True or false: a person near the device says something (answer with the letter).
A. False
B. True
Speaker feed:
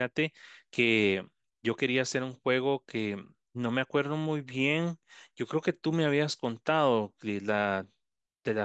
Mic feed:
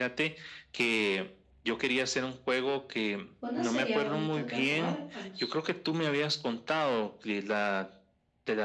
B